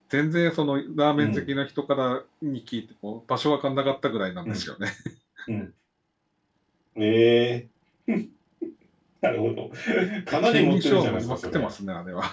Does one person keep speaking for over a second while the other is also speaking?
Yes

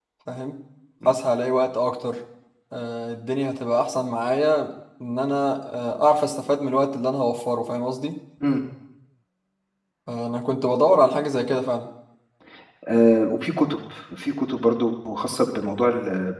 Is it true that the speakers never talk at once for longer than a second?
Yes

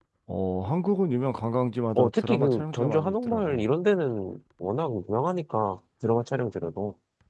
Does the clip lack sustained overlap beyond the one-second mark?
No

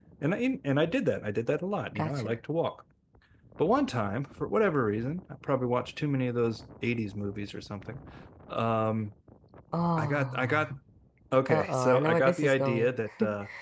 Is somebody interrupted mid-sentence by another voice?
Yes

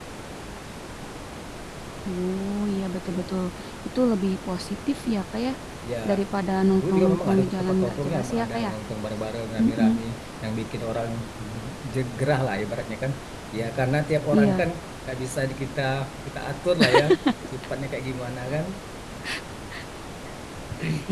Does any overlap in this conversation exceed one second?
Yes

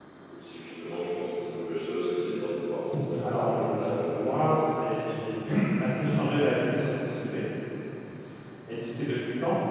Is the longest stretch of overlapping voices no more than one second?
No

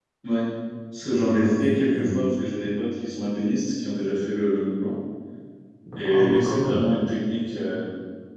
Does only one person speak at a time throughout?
No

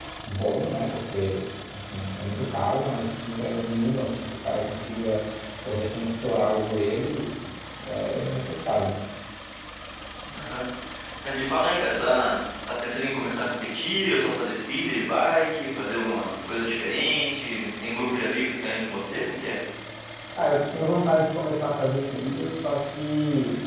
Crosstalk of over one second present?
No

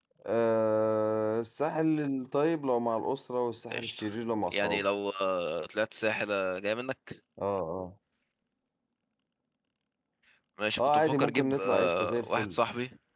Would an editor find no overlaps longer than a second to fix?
No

